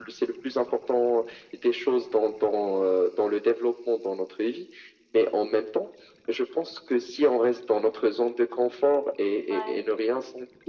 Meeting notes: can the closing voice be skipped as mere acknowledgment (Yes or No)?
Yes